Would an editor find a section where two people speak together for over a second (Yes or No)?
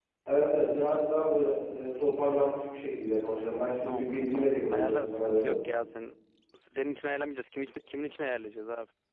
Yes